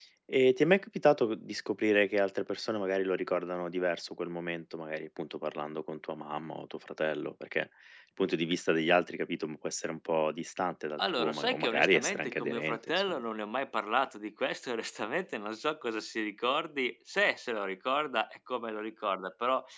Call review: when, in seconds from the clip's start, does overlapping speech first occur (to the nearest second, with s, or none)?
11 s